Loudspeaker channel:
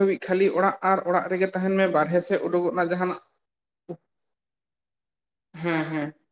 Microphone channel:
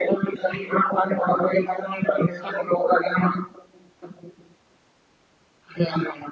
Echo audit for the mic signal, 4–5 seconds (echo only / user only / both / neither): neither